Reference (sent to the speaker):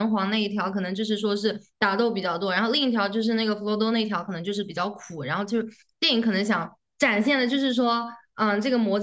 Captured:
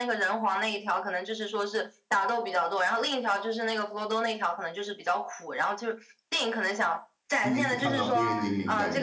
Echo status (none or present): present